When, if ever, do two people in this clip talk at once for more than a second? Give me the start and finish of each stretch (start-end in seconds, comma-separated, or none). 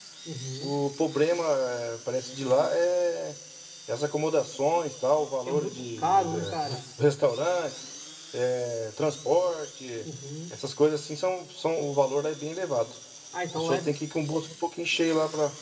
5.5-6.8